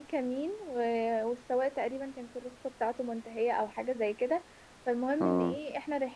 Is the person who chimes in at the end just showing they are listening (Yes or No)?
Yes